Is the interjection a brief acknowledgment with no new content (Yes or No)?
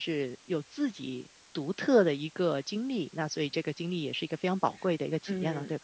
No